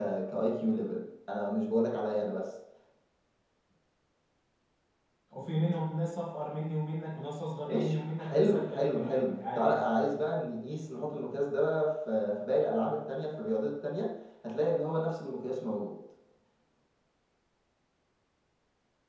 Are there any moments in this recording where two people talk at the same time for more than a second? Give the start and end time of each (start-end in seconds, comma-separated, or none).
7.7-9.9